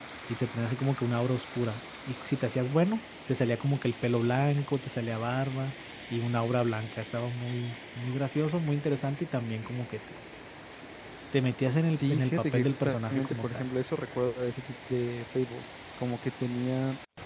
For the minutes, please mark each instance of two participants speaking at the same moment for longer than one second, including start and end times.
12.0-13.6

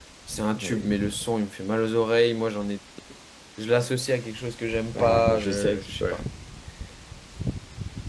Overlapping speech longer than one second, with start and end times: 5.0-6.2

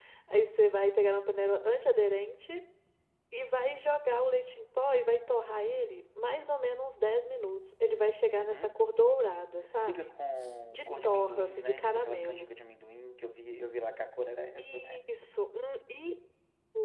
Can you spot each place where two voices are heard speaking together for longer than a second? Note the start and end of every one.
10.7-12.5

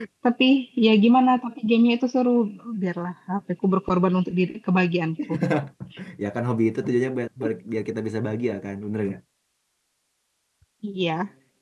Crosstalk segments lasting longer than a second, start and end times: none

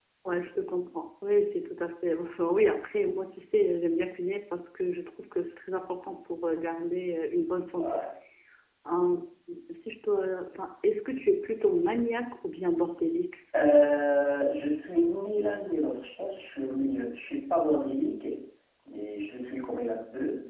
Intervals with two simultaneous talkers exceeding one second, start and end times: none

